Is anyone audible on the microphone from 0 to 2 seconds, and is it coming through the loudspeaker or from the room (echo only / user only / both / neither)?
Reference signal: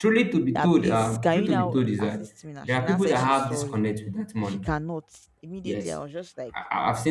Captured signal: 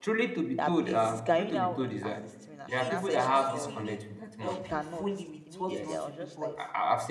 echo only